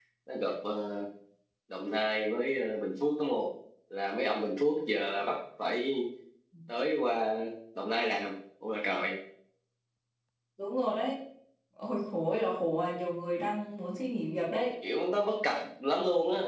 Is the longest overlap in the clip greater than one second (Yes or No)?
No